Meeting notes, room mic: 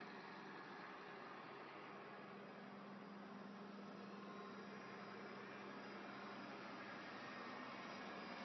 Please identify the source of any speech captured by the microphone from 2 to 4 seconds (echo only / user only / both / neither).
neither